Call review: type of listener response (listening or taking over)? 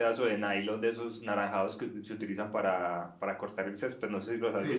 taking over